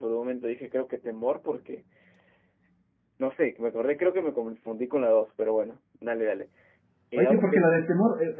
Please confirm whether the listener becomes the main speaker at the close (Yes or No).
Yes